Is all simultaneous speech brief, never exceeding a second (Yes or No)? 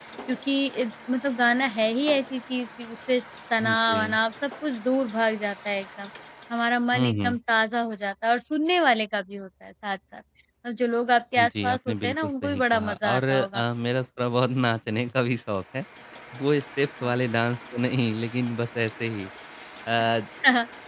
No